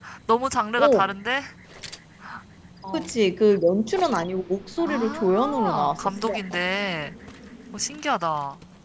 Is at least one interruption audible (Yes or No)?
Yes